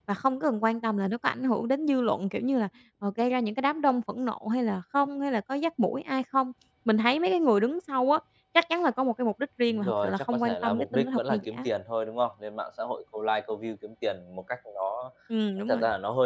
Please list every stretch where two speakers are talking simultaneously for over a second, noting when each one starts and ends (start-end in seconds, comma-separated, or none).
9.7-11.7